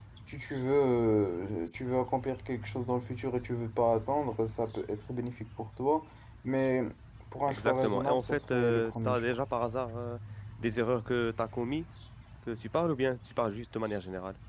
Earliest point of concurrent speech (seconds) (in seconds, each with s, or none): 7.5 s